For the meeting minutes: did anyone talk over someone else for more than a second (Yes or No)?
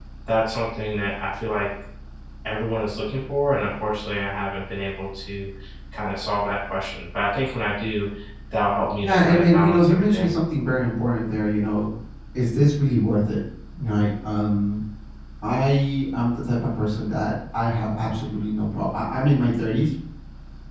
Yes